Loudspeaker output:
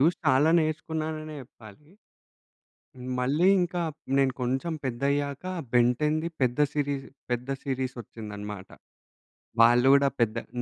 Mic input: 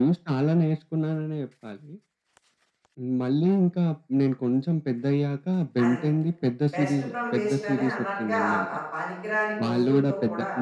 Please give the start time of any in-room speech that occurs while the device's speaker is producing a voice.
5.8 s

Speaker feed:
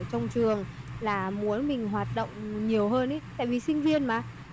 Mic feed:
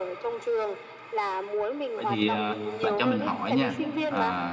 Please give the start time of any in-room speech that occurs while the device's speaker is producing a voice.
2.0 s

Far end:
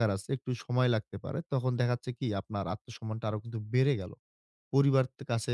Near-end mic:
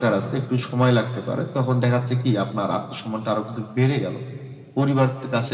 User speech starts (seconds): none

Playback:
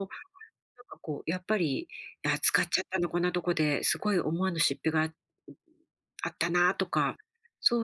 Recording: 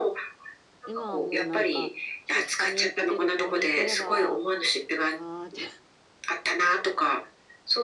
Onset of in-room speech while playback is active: 0.8 s

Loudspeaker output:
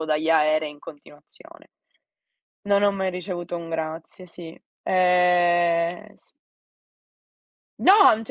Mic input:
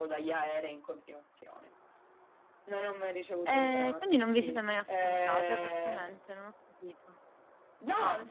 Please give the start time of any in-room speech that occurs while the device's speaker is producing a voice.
3.4 s

